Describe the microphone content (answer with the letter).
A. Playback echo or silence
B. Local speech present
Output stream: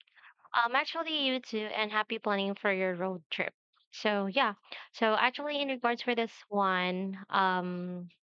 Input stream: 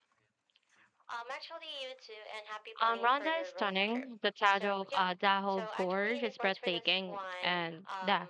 B